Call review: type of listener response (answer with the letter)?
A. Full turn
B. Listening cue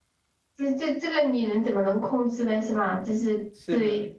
B